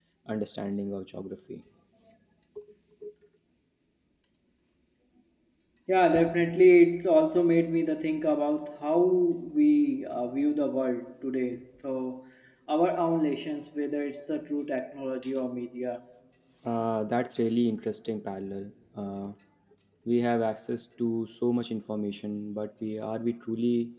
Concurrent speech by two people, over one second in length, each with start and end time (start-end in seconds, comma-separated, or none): none